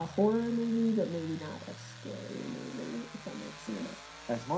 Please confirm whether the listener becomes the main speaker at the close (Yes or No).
Yes